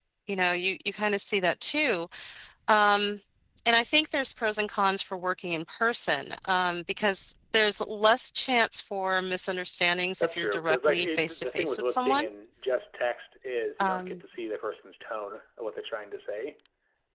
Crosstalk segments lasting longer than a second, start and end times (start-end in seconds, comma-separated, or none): 10.2-12.3